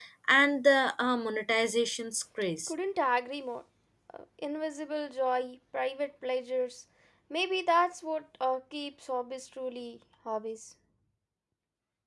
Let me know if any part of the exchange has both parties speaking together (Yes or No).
No